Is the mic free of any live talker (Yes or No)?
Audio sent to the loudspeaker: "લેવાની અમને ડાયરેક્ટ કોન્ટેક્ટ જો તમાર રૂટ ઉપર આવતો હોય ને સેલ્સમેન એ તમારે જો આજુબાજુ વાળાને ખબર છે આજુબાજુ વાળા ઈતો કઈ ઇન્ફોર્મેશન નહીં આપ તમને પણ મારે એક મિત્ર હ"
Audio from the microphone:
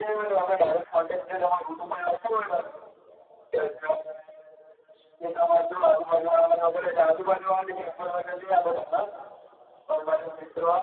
Yes